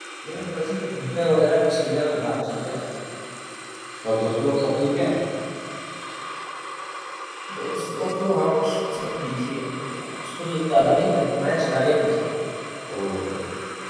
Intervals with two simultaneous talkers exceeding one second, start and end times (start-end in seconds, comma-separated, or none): none